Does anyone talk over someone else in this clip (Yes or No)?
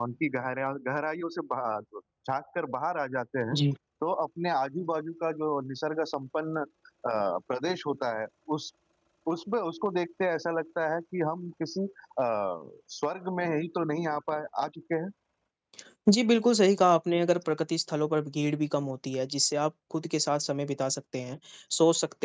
No